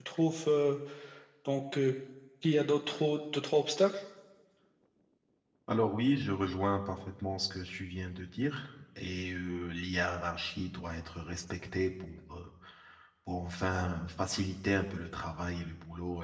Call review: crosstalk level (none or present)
none